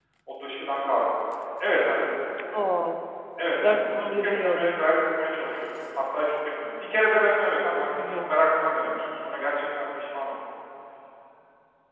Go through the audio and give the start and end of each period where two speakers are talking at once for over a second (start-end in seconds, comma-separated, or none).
3.6-4.8